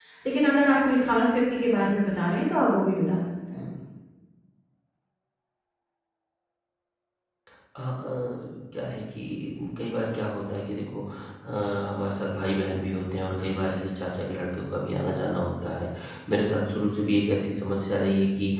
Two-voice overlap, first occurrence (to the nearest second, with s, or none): none